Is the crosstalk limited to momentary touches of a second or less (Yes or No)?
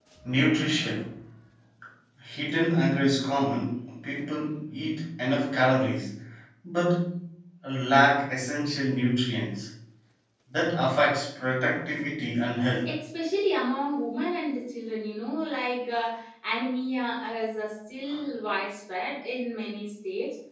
Yes